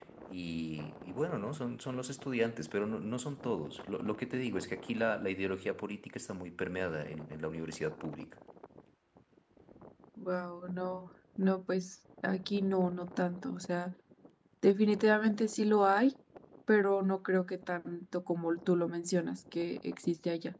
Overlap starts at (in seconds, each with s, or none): none